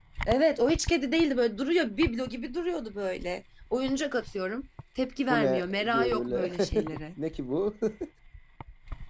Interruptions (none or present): present